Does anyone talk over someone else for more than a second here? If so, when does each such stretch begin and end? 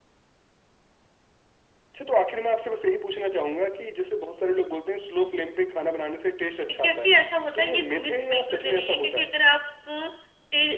7.6-9.2

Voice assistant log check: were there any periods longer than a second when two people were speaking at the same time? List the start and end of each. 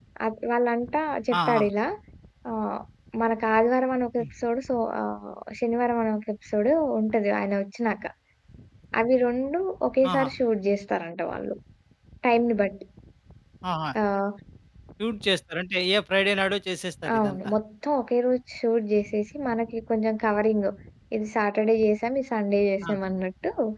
none

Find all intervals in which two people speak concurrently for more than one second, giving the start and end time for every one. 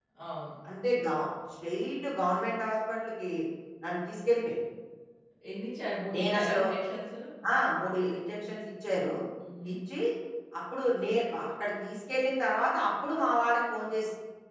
none

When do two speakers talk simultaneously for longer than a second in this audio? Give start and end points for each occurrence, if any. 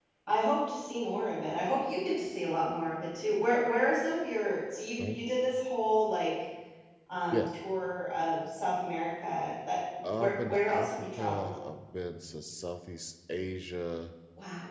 10.1-11.5

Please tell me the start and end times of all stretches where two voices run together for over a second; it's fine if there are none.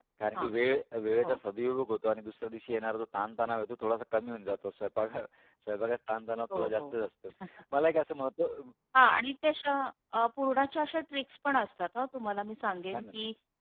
none

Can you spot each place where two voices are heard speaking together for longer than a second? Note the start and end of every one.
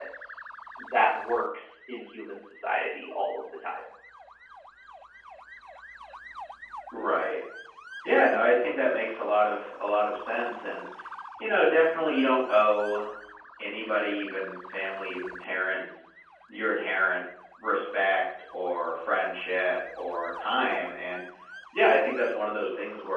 none

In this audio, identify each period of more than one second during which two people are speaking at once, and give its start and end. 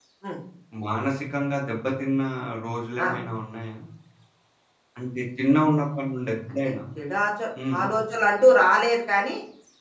none

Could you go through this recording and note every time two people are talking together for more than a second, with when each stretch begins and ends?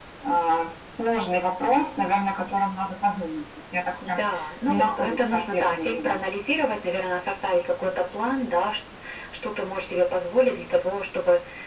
4.7-6.2

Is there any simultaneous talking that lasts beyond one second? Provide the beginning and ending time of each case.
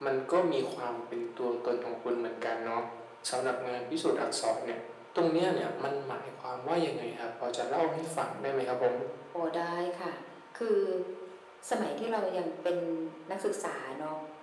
none

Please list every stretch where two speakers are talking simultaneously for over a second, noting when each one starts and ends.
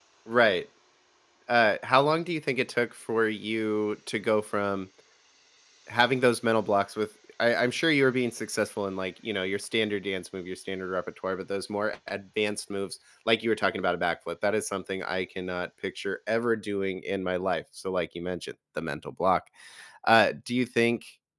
none

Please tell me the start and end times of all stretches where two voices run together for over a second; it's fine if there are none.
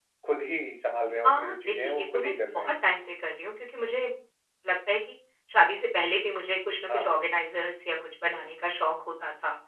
1.2-2.7

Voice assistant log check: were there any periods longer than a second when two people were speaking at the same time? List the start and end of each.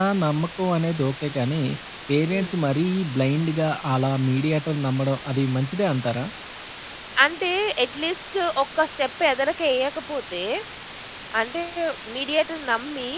none

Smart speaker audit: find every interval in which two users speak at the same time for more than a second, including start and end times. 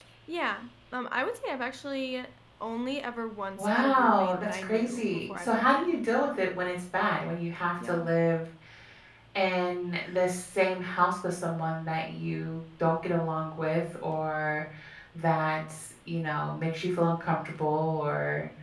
3.6-6.4

